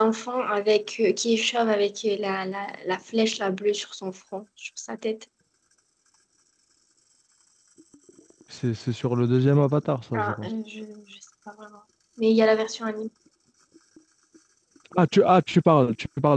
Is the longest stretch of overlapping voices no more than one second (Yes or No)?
Yes